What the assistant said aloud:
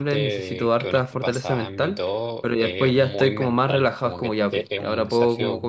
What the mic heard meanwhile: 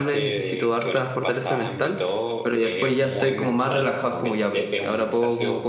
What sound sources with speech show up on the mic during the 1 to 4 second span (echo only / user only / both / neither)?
echo only